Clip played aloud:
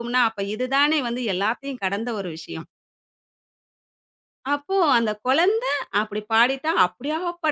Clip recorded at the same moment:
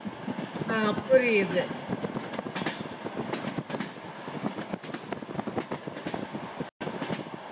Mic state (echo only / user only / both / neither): user only